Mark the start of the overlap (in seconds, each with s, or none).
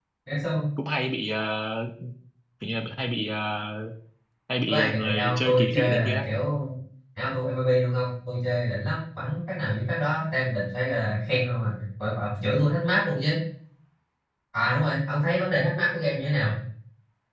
4.7 s